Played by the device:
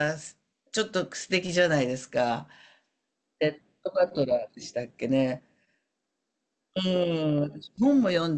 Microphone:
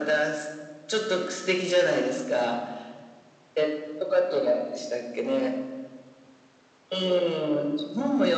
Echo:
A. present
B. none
A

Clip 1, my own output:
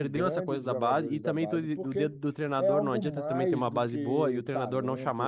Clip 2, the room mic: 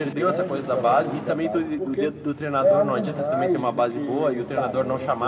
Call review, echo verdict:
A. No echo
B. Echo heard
B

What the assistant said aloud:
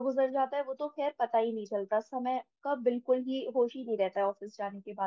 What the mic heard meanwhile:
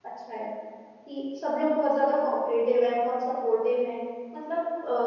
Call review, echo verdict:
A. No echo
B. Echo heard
A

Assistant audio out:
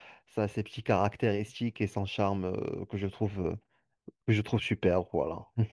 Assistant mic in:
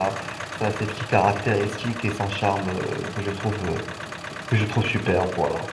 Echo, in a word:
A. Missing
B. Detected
B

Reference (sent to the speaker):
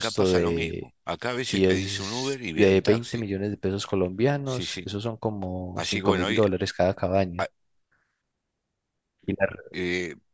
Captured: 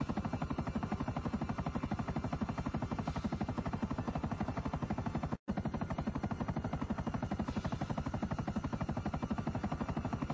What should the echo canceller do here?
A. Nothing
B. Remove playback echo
A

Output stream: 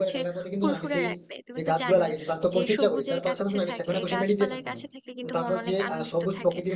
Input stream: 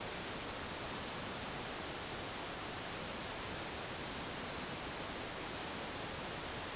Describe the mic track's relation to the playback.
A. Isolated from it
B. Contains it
A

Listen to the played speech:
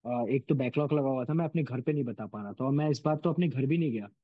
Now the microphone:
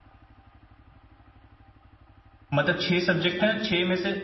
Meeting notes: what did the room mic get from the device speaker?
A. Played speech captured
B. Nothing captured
B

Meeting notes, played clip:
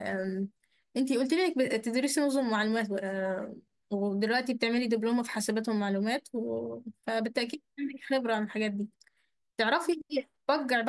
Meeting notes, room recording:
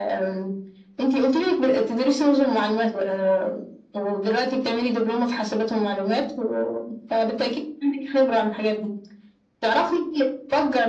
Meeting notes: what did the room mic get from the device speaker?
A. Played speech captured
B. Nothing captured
A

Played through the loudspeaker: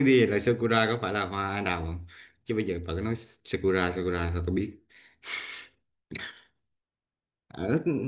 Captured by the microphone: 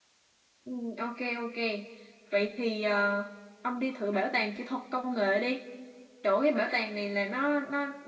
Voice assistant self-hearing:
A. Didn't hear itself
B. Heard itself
A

